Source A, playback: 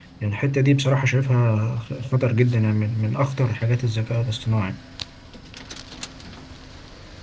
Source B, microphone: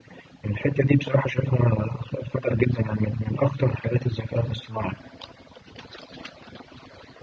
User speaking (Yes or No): No